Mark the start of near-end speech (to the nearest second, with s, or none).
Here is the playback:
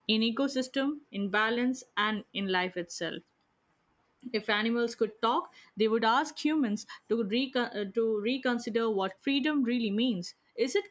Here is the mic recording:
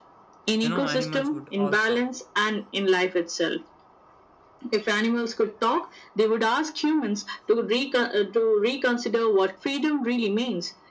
1 s